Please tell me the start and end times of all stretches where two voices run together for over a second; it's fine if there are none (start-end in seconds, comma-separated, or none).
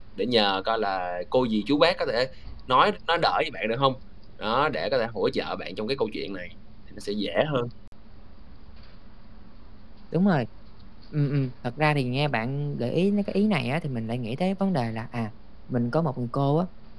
none